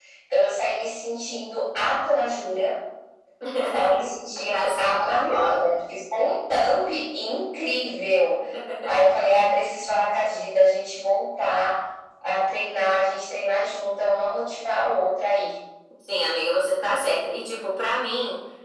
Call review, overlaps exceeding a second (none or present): present